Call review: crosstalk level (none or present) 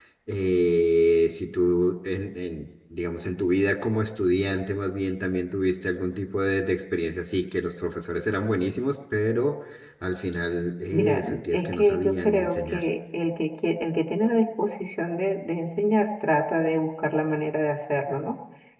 present